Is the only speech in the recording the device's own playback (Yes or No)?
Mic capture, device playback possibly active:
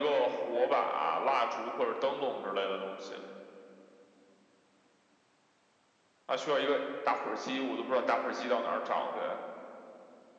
Yes